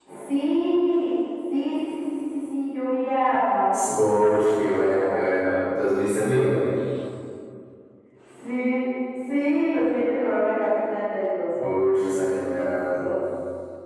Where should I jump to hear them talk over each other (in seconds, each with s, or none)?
3.7 s